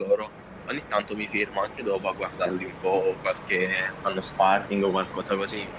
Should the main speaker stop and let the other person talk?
No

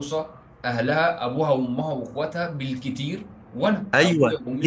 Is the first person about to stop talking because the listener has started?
Yes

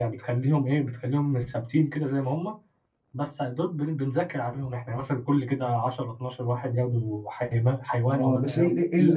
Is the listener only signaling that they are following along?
No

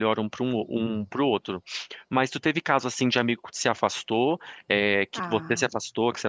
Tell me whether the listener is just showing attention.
Yes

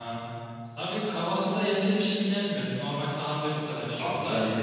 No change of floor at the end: No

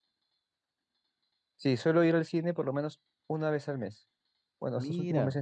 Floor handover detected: No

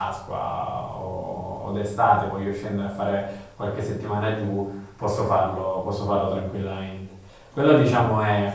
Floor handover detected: No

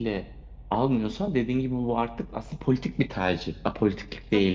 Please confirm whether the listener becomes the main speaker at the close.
Yes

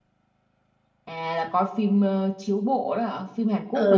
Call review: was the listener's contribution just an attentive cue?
No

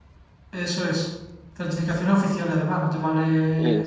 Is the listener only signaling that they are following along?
Yes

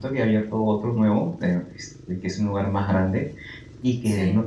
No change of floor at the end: Yes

